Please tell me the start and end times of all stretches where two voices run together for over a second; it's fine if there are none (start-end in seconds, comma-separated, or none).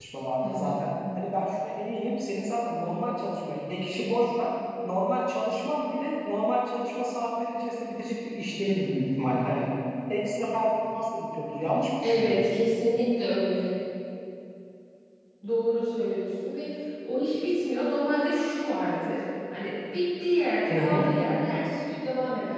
none